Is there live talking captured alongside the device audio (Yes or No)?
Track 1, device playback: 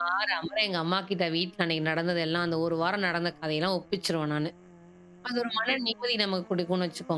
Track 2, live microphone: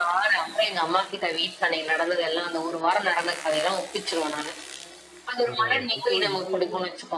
Yes